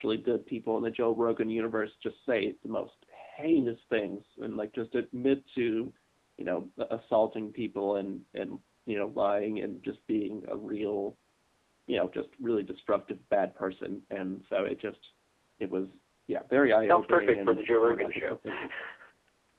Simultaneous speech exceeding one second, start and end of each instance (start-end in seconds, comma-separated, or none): 16.9-18.4